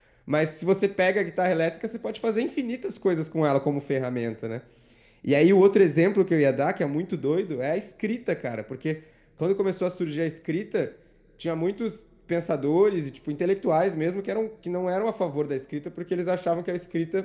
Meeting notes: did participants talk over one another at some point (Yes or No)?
No